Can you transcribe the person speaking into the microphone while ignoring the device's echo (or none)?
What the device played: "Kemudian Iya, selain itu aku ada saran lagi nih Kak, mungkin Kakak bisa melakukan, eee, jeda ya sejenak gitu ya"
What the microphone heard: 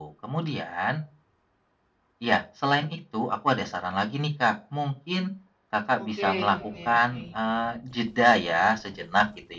Oke oke oke.